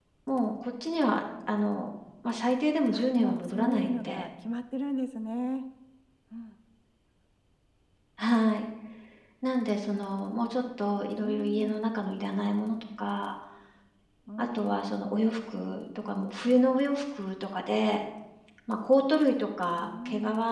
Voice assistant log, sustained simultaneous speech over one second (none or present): present